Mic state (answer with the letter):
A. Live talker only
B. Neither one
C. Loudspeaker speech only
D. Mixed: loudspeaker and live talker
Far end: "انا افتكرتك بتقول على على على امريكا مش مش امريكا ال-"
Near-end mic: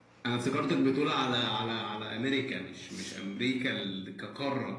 C